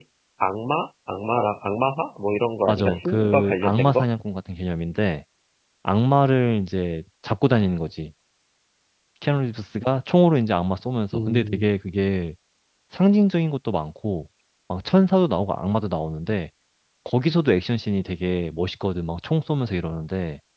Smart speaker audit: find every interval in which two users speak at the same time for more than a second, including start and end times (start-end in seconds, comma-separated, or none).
2.7-4.0